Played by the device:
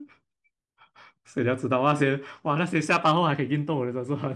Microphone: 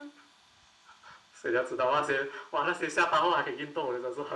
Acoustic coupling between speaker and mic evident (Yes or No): Yes